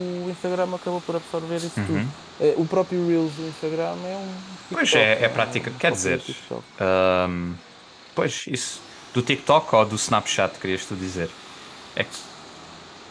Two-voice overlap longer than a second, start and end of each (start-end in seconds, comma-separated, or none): 4.9-6.2